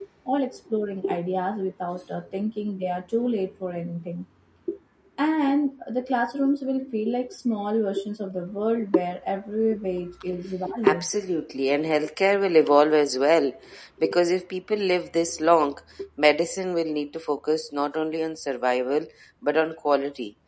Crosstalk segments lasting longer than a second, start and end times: none

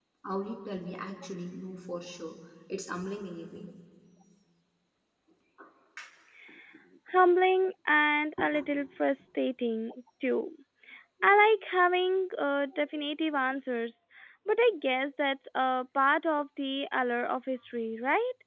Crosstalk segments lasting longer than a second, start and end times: none

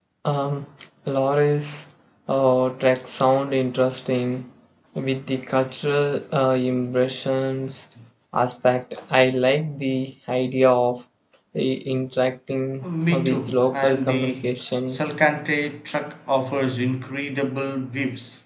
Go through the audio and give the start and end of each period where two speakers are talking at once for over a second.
13.1-14.4

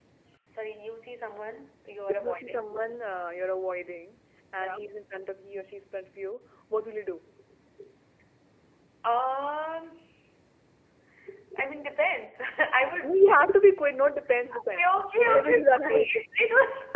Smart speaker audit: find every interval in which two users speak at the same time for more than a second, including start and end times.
14.7-16.1

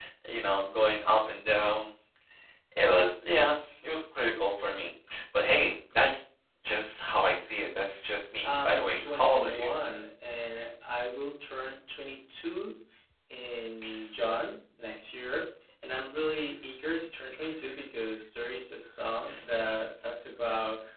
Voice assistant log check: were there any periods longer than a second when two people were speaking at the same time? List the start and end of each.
8.4-9.6

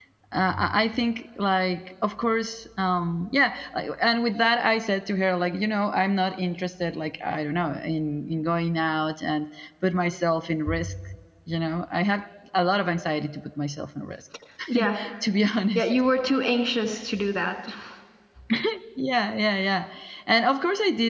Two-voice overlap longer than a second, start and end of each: none

